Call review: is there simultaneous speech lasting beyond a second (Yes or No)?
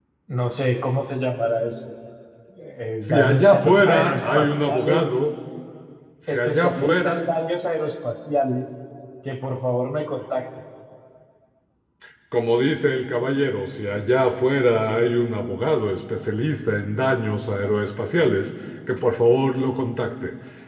Yes